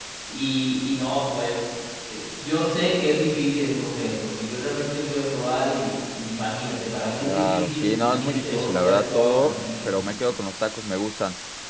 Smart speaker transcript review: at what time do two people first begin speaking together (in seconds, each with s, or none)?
7.2 s